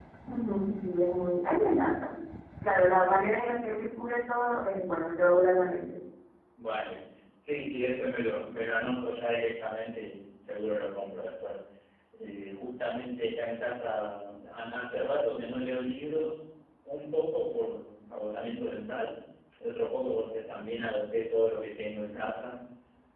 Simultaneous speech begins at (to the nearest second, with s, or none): none